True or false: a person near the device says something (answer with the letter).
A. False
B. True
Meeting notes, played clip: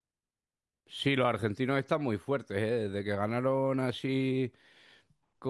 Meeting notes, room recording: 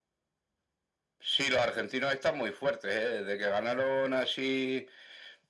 A